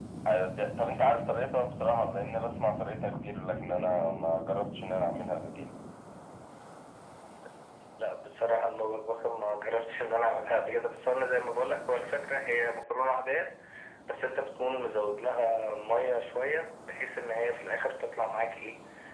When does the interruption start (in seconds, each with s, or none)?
none